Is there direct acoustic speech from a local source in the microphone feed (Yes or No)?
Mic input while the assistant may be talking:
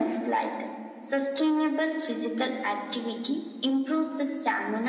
No